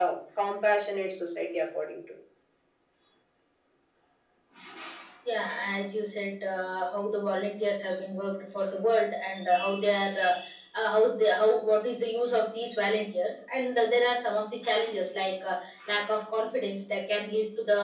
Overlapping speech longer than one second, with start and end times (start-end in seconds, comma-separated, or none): none